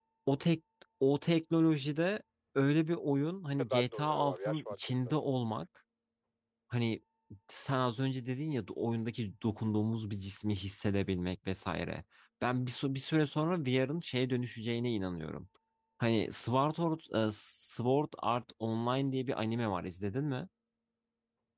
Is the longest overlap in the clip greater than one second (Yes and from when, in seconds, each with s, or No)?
Yes, from 3.6 s